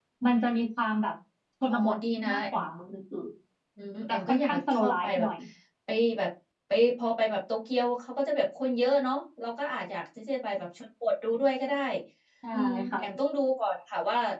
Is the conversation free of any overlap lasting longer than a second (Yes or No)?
No